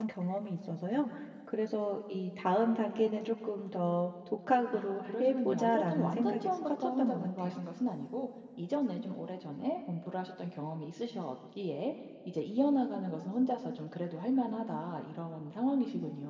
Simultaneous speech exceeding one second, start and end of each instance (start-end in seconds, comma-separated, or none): 4.7-7.5